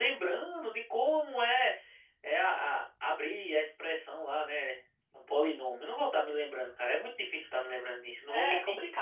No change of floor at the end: No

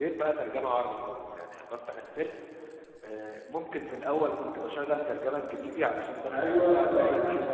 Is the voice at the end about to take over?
Yes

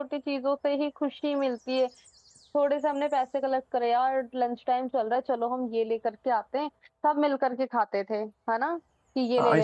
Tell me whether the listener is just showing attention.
No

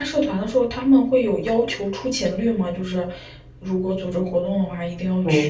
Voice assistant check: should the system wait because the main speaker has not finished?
No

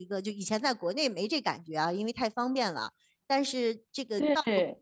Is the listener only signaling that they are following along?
Yes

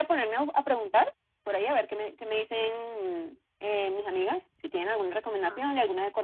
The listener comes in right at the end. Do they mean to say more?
No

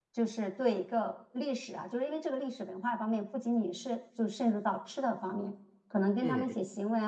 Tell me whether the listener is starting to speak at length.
No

